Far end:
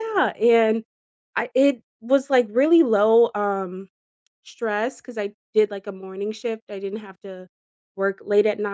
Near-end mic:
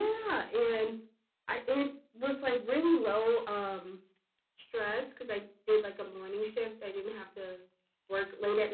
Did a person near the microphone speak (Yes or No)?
No